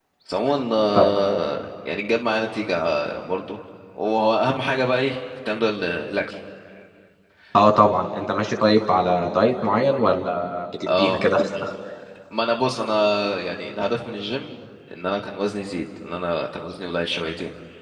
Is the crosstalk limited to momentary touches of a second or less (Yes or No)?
Yes